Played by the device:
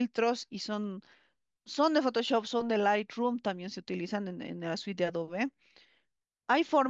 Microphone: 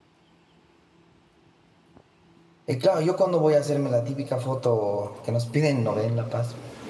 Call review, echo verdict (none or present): none